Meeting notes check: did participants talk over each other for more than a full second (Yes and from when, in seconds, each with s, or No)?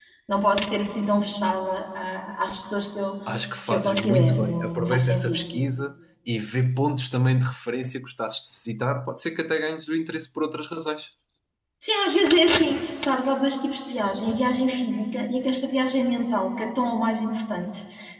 Yes, from 3.7 s